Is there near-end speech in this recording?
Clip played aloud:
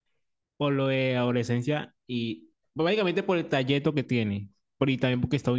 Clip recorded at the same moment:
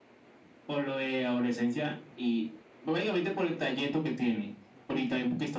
No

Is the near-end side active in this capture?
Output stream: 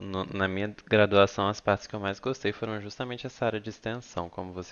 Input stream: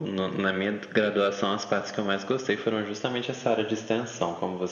No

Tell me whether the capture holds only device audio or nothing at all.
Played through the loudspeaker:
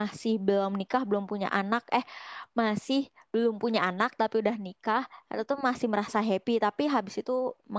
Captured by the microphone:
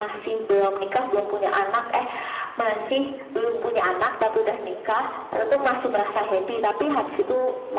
Yes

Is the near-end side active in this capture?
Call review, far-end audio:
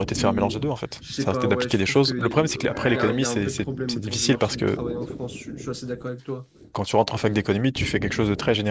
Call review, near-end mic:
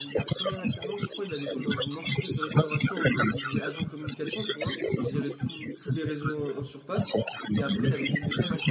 Yes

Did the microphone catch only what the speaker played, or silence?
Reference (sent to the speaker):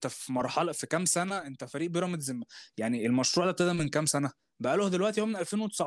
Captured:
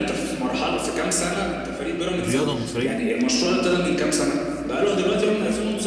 No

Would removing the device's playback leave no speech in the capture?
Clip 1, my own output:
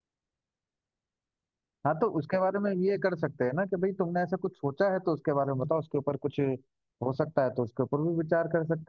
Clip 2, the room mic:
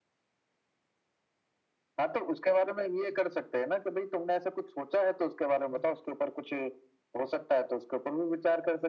Yes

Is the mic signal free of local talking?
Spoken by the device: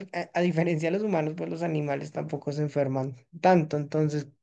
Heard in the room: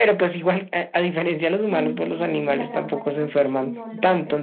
No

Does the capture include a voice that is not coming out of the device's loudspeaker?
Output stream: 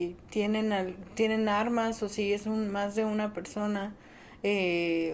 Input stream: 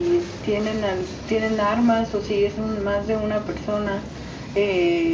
No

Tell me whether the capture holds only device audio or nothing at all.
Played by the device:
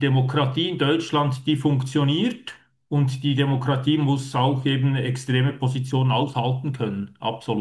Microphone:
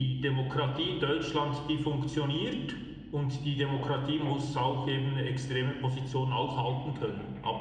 Yes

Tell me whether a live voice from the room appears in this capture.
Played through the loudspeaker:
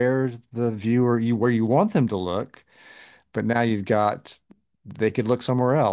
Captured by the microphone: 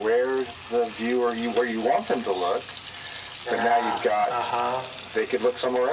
Yes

